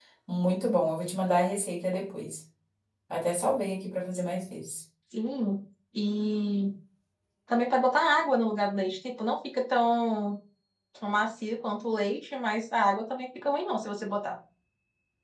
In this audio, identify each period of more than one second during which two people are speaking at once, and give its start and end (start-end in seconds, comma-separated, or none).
none